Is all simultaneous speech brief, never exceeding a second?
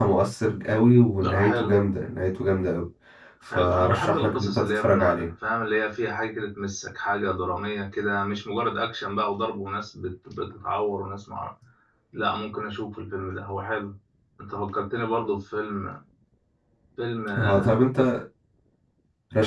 No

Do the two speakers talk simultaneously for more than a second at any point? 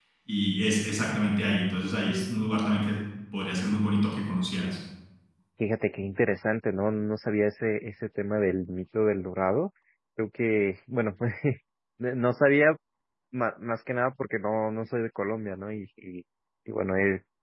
No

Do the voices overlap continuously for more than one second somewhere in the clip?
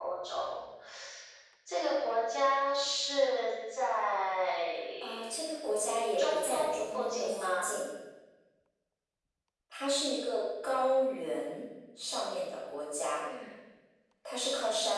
Yes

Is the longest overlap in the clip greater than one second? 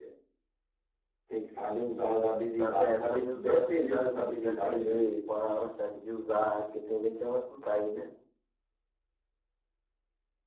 Yes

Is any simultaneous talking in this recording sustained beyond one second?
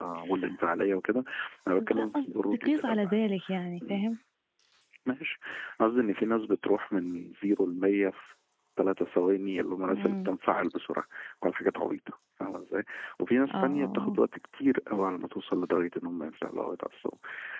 Yes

